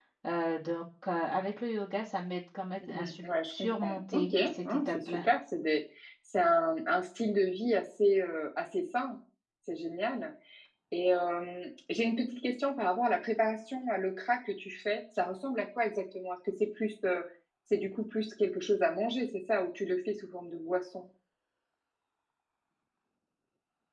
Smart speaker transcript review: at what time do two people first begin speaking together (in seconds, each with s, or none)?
2.8 s